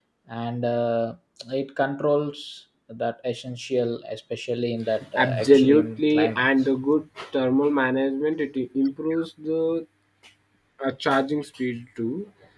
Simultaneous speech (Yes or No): Yes